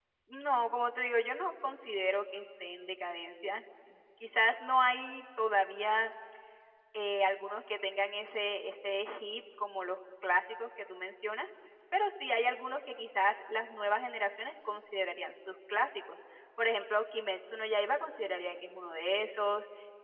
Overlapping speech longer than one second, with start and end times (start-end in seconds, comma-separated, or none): none